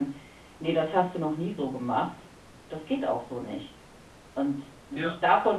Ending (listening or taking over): listening